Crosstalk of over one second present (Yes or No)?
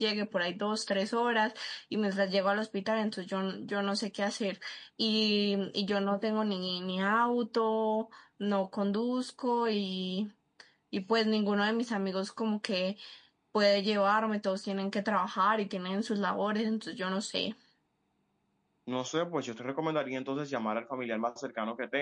No